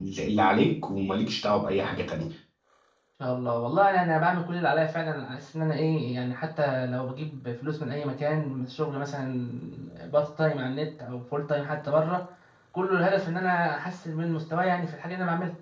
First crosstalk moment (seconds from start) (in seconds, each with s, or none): none